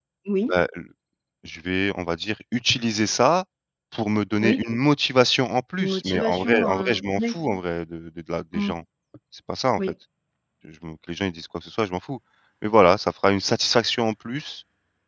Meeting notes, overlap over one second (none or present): present